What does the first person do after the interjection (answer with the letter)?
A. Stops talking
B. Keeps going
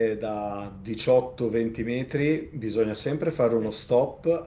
B